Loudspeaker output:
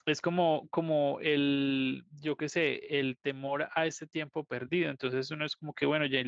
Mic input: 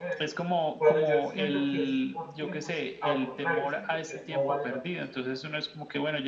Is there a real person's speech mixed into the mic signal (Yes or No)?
Yes